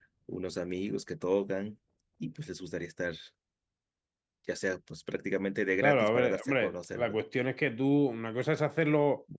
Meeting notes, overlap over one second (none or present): present